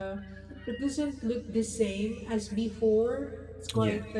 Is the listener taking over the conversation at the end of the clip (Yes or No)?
No